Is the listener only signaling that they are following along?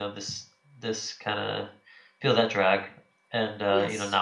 Yes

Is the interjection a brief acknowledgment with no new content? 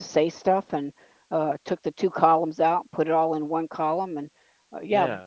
Yes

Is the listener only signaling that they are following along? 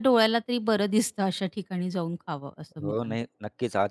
No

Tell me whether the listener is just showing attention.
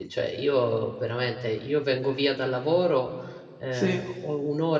Yes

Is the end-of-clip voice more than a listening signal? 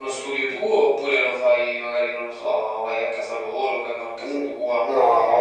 Yes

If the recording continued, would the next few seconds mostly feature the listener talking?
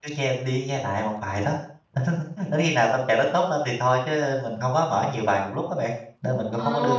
Yes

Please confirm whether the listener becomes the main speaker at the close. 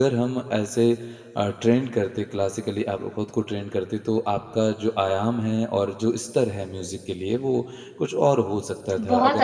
Yes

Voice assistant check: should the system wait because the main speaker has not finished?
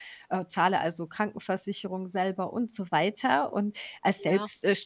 Yes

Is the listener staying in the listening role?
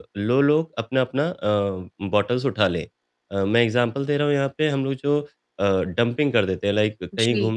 Yes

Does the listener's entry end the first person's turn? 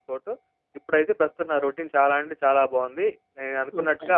No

